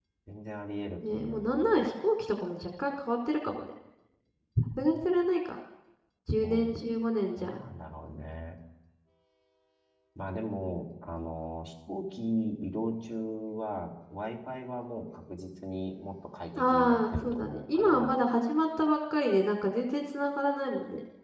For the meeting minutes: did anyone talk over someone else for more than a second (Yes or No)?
Yes